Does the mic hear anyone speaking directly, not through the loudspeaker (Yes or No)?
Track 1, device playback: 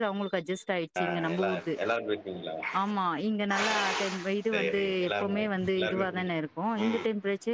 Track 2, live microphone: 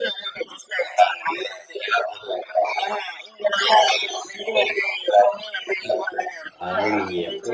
Yes